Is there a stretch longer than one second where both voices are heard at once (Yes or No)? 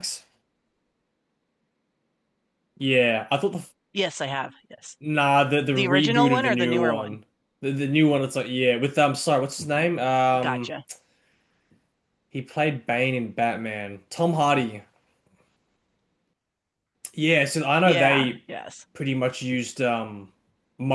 Yes